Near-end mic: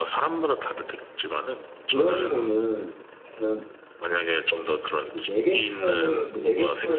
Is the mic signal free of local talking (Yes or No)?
No